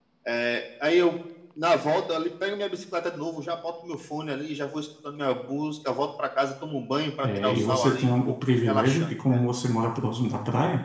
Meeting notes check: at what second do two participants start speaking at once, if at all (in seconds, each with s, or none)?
7.2 s